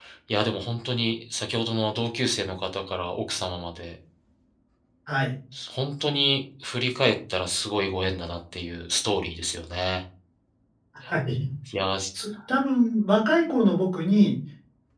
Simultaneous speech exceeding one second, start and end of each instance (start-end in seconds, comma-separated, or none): none